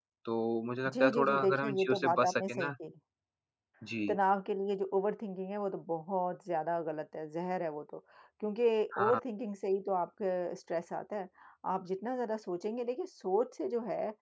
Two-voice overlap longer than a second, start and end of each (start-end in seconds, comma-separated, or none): 0.9-2.7